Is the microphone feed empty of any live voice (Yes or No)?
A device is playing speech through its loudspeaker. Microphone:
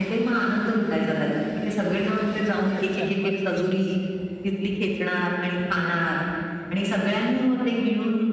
No